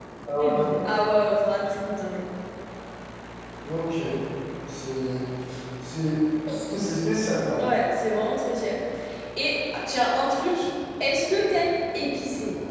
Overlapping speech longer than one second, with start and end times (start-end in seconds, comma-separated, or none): none